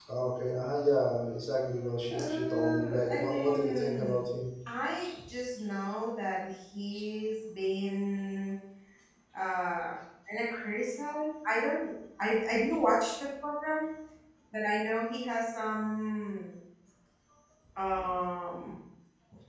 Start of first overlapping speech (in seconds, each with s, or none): 2.1 s